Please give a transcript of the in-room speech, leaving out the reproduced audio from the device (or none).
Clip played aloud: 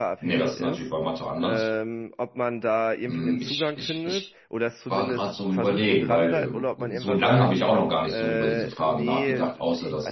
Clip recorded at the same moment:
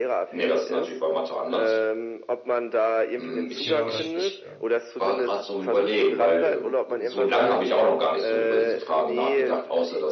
Genau, das, ja.